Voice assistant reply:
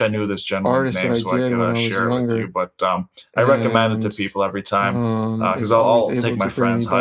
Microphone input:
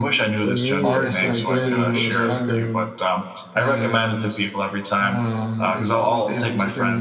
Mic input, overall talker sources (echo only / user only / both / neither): both